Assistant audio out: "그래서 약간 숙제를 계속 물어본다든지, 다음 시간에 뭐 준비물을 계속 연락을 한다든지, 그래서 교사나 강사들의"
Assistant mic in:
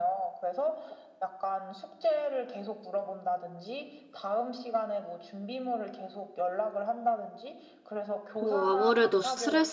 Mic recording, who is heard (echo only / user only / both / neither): both